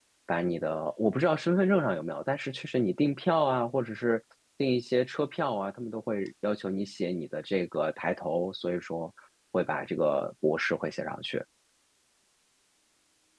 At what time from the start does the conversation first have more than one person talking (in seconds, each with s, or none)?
none